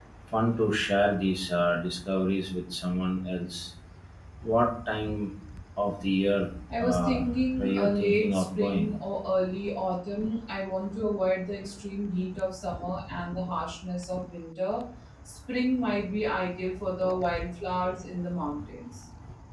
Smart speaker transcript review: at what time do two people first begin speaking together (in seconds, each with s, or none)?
6.7 s